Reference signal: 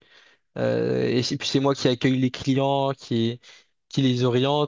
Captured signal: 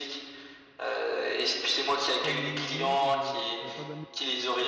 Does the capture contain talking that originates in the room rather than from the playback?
Yes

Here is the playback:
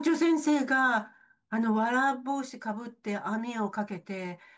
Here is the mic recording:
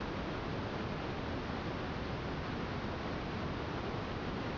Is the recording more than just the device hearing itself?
No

